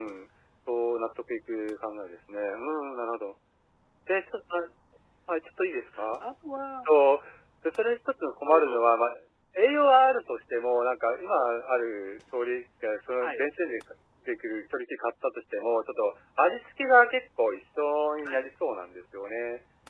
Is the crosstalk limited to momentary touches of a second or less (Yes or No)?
Yes